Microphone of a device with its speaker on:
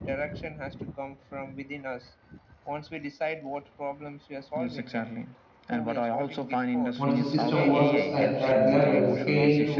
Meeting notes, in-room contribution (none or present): present